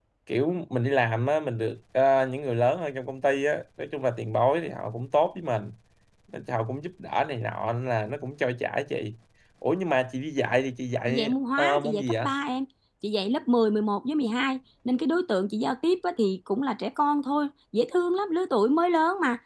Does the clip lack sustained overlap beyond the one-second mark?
No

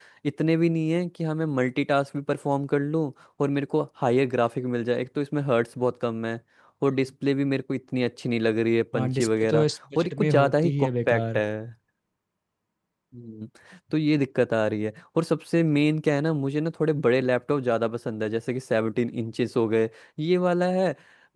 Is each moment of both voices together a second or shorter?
No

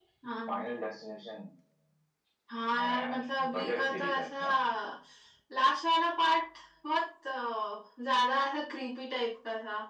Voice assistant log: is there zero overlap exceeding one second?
No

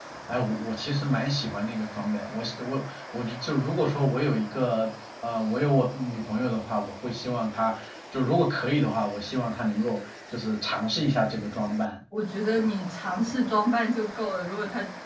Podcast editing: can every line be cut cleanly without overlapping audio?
Yes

